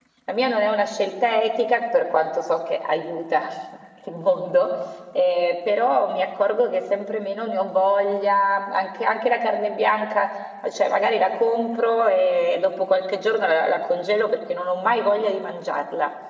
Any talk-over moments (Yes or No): No